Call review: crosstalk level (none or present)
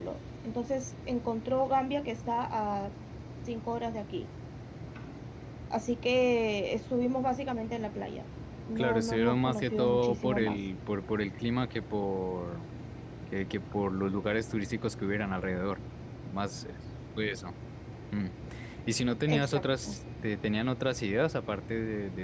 present